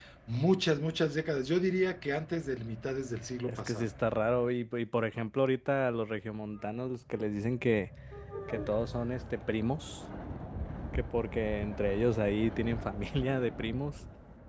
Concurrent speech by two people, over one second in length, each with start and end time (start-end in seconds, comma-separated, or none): none